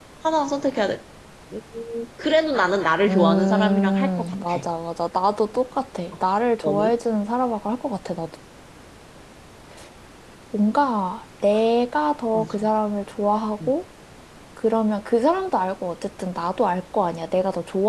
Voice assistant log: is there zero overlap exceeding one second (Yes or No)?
No